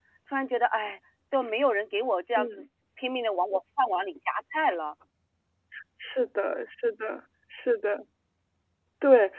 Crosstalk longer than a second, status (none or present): none